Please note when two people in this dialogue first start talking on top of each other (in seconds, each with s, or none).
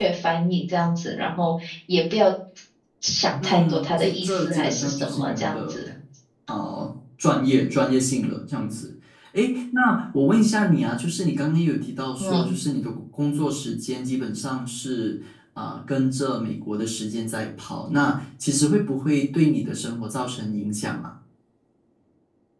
3.4 s